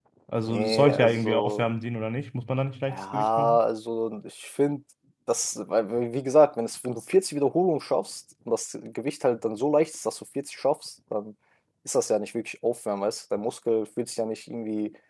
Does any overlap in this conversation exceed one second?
Yes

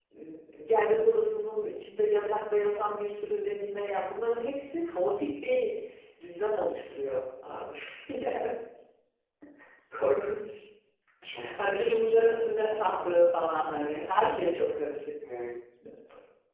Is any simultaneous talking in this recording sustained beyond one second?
Yes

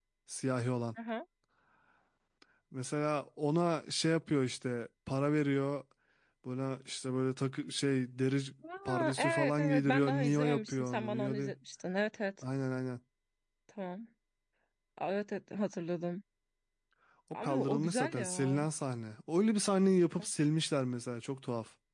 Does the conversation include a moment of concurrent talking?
Yes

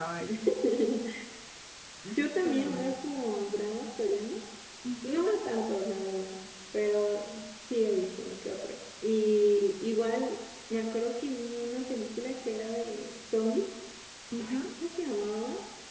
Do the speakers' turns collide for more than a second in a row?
No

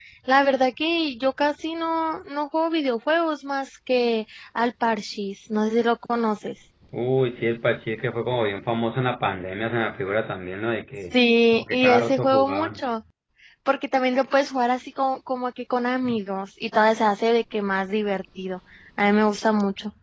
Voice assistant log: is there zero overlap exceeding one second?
No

